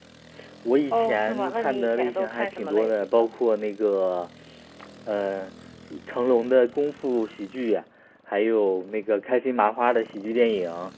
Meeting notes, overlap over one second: present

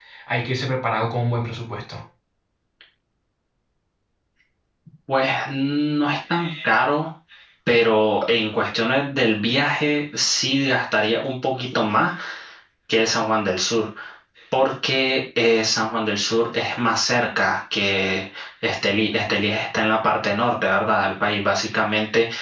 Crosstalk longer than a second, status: none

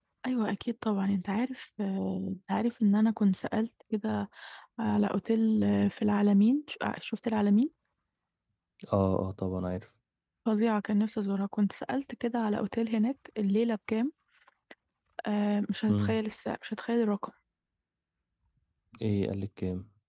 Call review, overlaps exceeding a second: none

